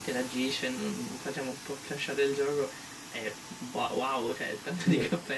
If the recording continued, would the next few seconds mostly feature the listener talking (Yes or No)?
Yes